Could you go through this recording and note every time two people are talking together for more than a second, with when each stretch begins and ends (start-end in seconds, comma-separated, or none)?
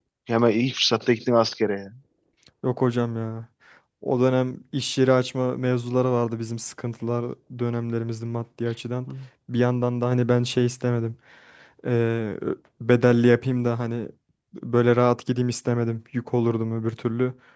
none